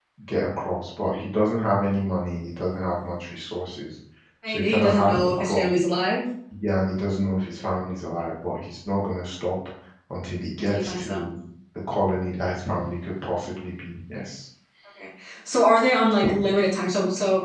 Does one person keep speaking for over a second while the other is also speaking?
Yes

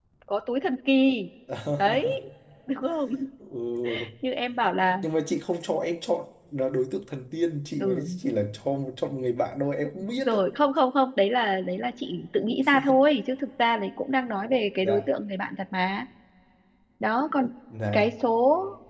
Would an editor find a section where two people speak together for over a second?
No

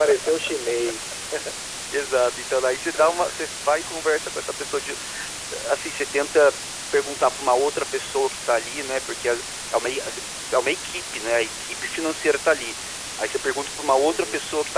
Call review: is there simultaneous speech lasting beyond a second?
No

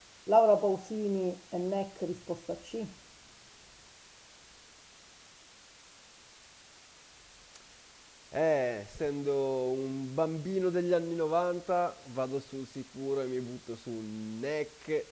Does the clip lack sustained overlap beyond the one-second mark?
Yes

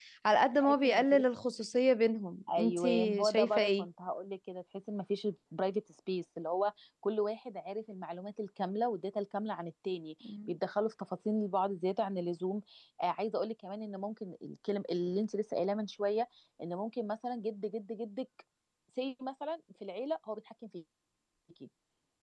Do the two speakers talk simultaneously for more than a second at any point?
Yes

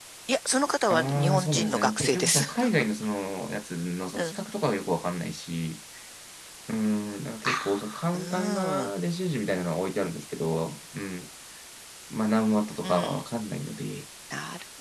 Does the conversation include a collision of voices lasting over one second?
Yes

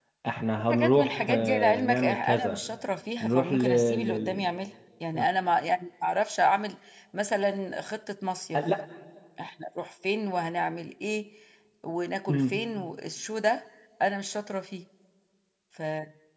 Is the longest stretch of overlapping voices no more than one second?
No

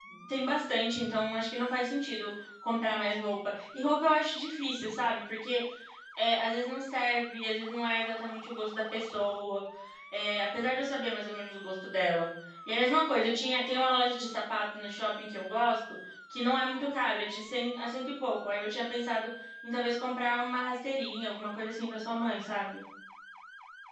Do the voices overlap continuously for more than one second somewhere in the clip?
No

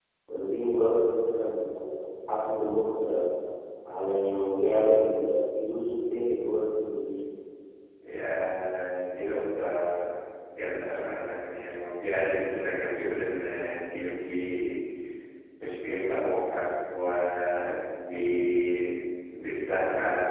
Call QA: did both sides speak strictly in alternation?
Yes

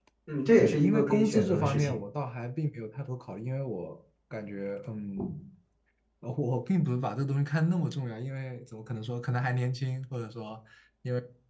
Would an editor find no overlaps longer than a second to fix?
No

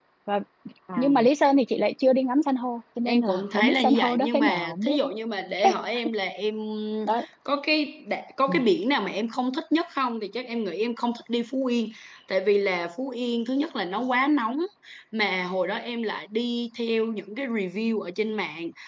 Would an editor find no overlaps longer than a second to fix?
No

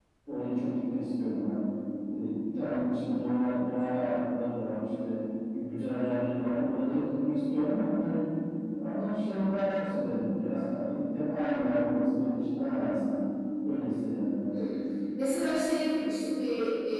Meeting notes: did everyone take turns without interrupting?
Yes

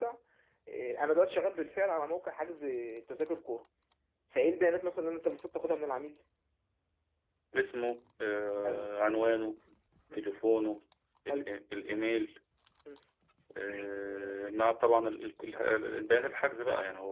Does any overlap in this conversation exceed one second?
No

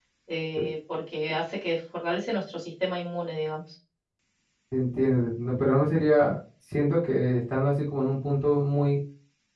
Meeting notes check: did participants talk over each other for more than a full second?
No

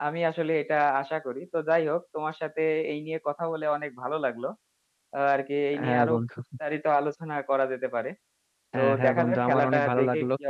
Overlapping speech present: Yes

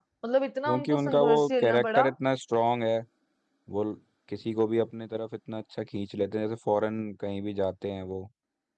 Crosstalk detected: Yes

